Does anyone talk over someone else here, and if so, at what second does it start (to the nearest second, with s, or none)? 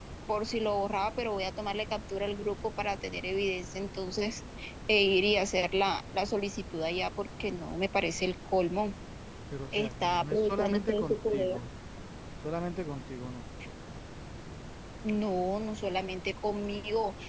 10 s